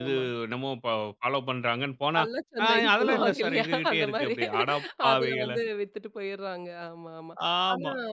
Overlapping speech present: Yes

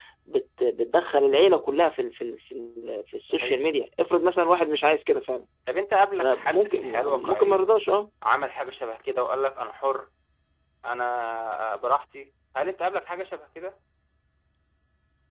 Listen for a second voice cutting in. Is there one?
Yes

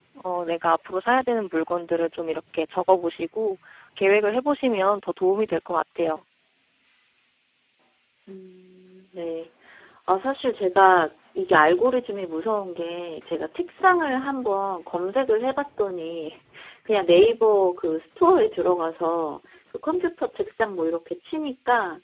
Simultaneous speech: No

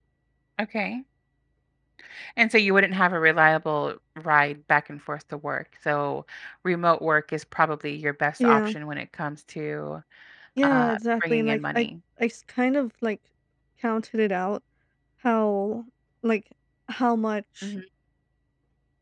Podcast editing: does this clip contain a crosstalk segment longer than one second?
Yes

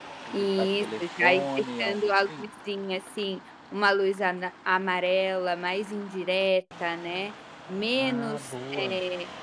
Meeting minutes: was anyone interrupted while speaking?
Yes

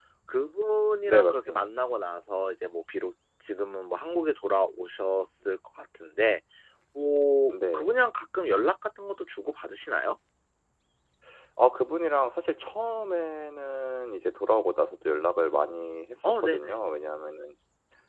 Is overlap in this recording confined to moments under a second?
Yes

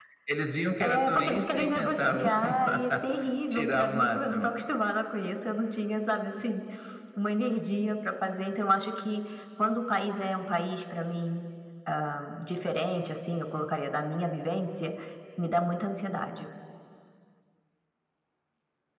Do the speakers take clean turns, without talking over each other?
No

